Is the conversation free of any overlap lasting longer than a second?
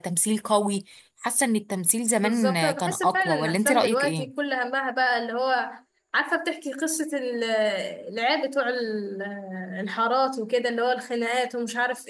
No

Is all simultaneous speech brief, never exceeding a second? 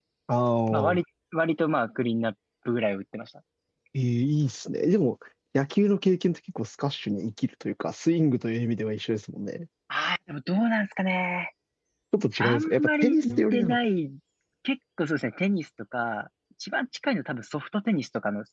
No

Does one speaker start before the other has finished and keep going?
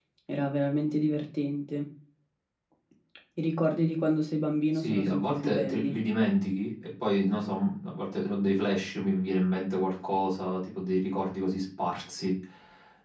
Yes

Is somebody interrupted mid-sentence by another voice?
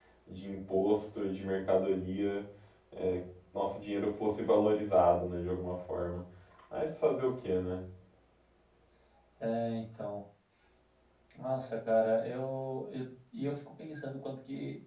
No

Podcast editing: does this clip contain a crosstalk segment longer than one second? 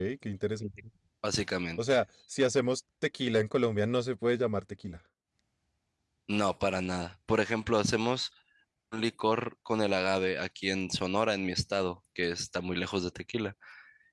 No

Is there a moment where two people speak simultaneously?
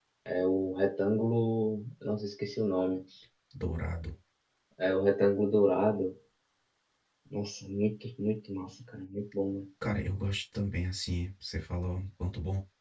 No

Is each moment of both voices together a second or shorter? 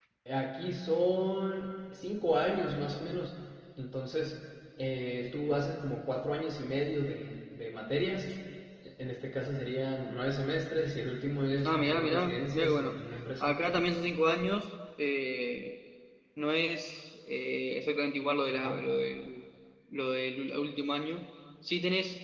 No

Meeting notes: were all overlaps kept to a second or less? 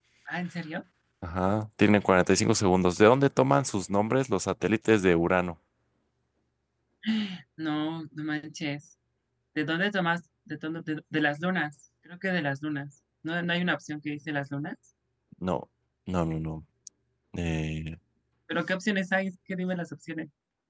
Yes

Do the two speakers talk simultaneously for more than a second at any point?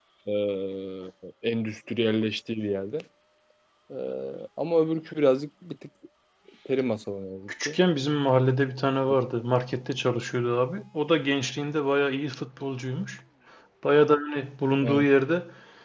No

